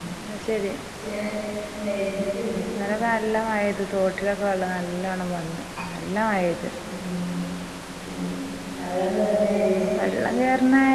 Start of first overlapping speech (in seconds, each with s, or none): none